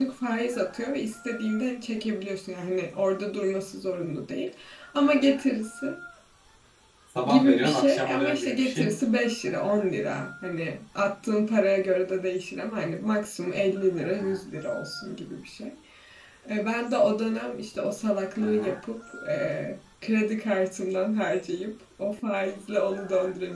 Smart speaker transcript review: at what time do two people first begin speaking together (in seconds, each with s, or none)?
7.3 s